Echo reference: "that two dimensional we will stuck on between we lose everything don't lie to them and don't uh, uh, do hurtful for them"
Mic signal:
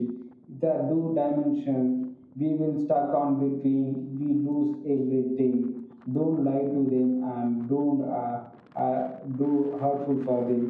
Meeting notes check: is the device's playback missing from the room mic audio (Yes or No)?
No